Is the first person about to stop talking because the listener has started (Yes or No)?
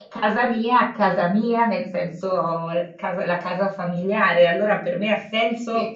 No